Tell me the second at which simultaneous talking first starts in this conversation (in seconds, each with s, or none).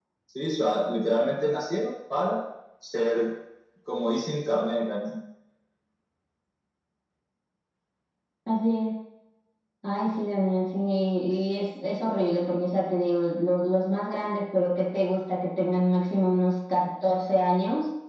none